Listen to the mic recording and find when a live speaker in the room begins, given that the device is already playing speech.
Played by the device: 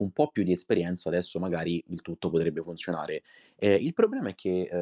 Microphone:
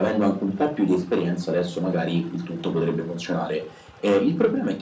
none

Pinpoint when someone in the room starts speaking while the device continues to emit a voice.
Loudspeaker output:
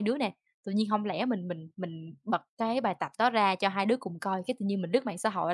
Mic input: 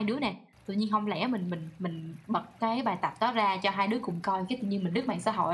none

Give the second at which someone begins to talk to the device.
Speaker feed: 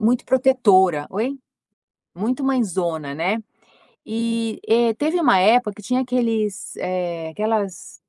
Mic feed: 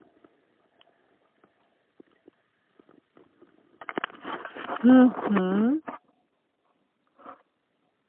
5 s

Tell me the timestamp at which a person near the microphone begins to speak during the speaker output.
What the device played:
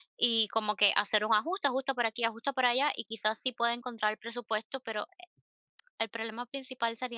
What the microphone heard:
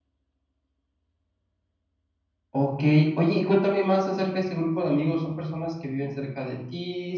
3 s

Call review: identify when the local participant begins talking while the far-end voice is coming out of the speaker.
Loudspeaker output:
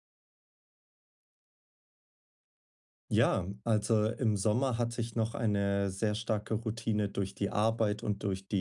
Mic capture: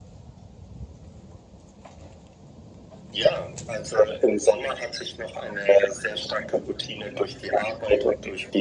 none

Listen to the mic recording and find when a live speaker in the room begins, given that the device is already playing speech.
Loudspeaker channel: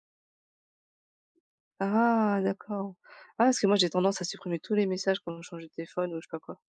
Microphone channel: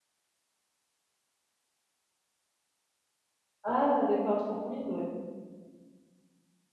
4 s

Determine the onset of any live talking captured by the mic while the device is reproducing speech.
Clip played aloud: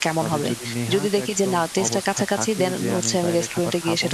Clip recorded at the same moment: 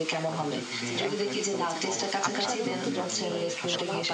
1 s

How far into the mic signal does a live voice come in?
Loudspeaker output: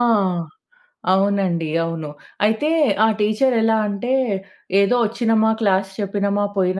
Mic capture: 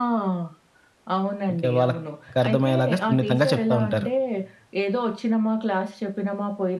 1 s

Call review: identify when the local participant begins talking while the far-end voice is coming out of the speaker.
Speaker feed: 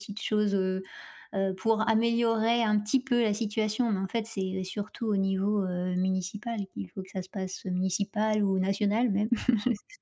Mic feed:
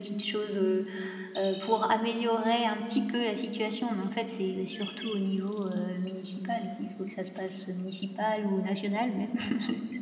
none

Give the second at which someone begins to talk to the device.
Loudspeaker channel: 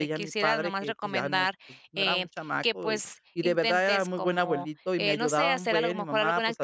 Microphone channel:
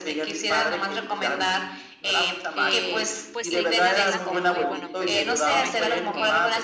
3 s

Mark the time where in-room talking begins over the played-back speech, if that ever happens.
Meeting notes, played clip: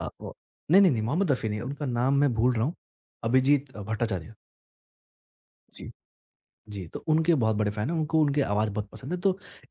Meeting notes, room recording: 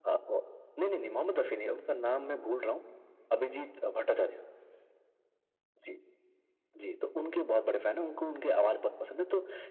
none

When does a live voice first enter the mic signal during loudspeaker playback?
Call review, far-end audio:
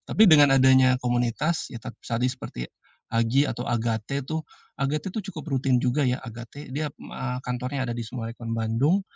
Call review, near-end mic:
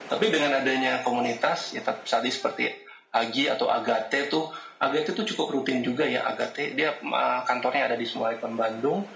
none

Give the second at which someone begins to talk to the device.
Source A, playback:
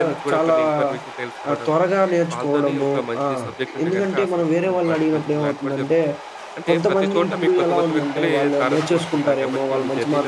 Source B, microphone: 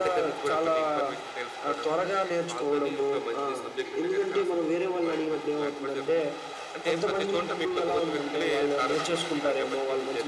none

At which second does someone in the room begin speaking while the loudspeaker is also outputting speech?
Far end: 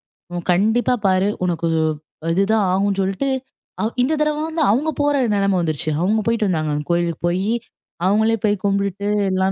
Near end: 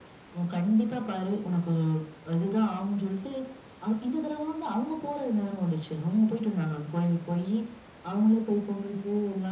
none

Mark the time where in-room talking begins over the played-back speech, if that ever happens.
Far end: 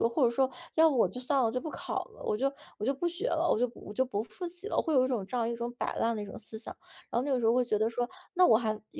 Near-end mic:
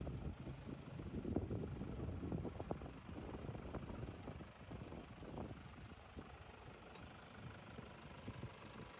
none

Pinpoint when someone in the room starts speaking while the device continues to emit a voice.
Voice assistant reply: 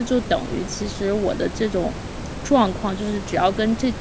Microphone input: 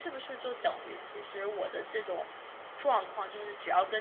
none

